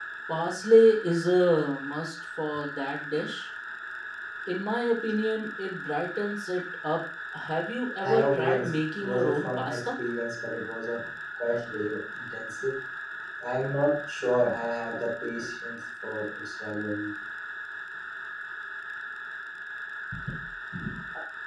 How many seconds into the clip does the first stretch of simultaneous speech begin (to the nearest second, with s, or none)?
8 s